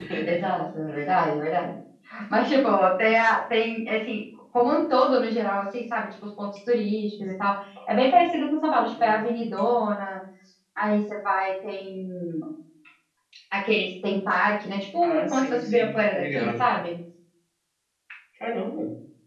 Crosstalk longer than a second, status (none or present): present